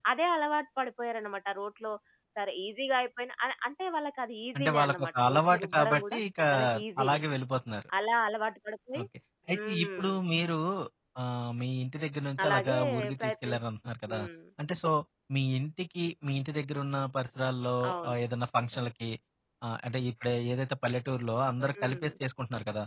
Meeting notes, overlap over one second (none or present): present